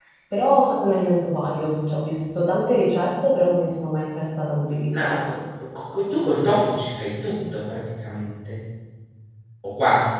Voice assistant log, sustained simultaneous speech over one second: none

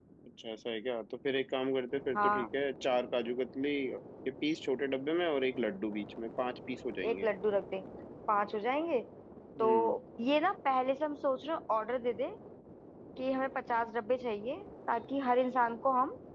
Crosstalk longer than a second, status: none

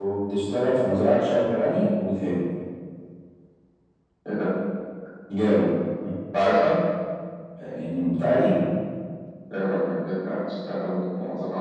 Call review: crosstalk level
none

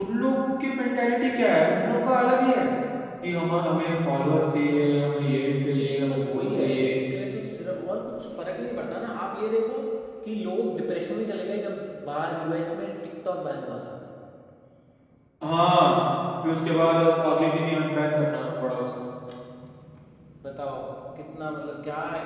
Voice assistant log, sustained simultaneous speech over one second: present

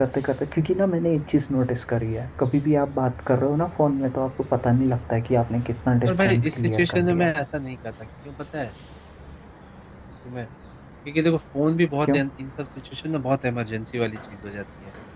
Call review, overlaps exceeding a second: present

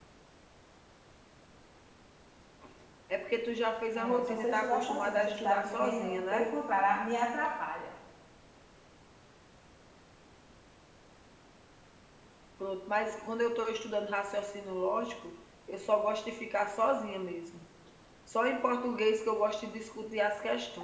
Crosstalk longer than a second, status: present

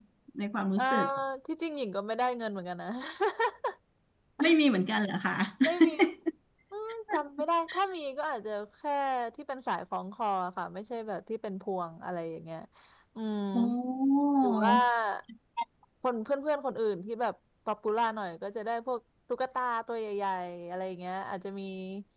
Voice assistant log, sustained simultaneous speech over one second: none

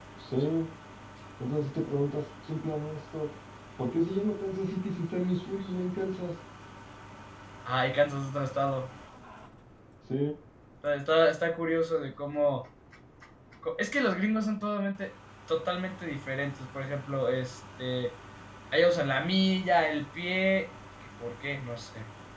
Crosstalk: none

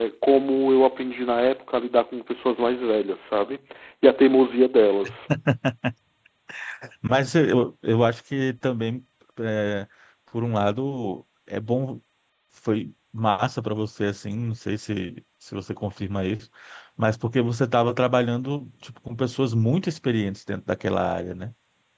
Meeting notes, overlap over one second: none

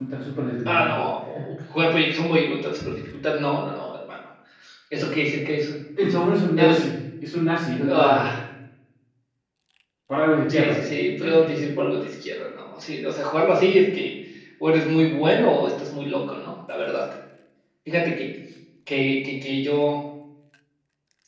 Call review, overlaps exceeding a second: none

